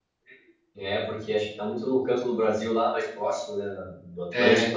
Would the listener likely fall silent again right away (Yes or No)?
Yes